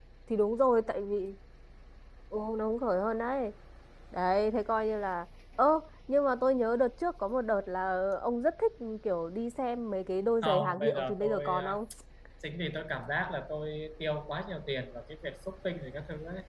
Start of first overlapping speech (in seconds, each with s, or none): 10.4 s